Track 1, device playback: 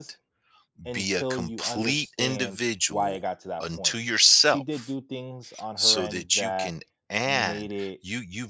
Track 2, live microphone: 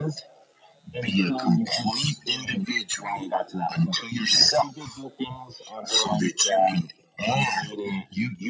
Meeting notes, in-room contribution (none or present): none